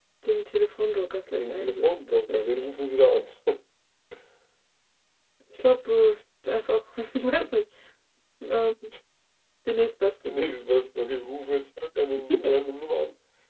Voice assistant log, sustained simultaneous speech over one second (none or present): present